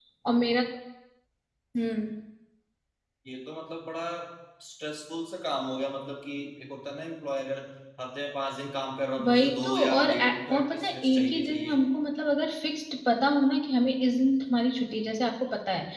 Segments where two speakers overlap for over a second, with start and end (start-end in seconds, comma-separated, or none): 9.2-11.8